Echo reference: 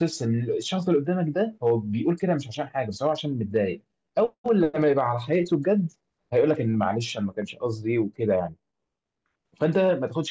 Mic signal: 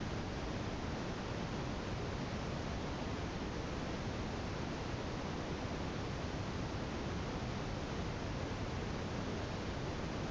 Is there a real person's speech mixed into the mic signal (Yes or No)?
No